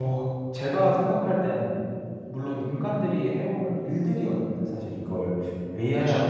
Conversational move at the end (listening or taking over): listening